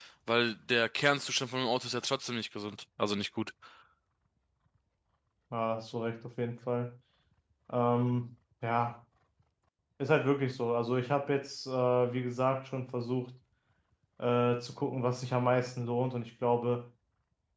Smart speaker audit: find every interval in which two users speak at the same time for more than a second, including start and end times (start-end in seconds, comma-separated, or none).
none